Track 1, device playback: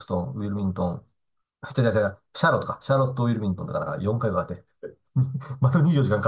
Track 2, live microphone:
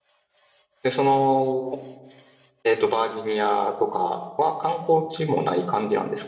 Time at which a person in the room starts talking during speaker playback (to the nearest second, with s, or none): 1 s